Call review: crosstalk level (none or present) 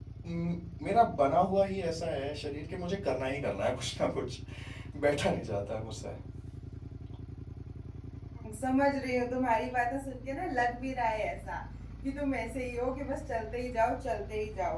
none